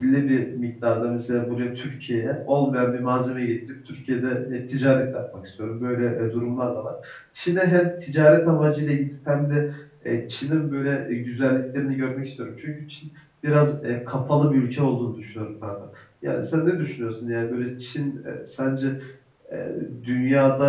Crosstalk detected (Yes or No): No